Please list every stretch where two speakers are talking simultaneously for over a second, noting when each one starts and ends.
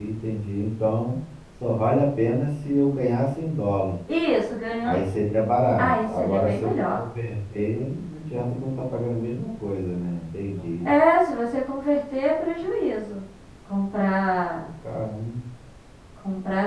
5.8-7.0

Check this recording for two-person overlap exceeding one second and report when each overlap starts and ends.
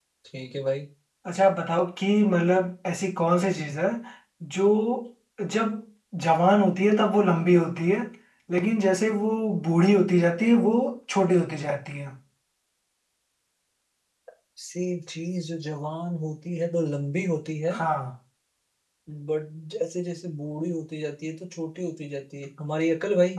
none

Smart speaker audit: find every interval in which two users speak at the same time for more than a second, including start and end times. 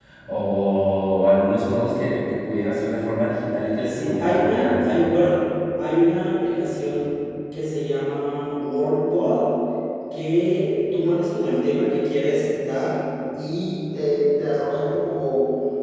3.9-5.3

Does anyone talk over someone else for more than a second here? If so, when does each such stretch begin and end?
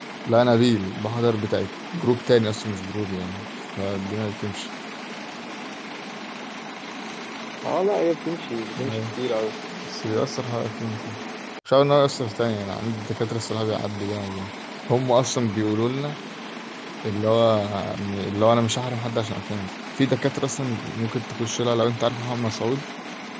none

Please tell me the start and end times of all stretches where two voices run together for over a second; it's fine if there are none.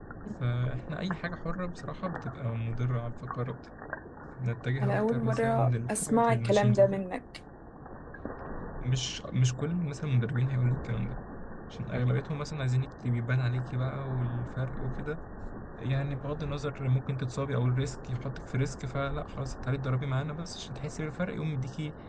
4.8-7.0

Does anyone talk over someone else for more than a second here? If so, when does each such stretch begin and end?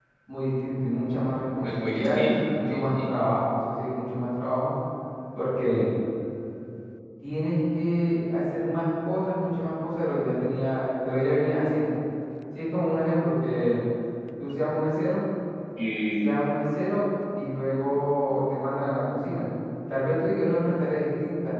1.6-3.1

